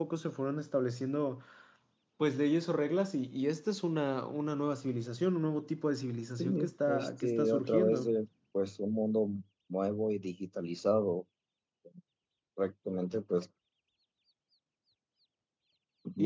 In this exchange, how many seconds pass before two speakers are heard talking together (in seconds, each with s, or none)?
6.4 s